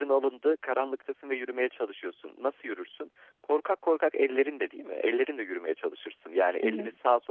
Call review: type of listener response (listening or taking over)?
listening